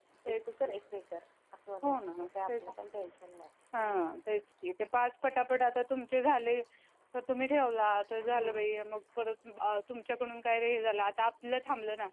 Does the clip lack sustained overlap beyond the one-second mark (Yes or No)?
Yes